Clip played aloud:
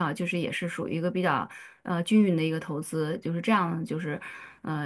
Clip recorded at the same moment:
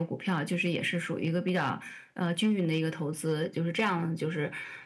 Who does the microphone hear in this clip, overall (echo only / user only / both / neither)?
echo only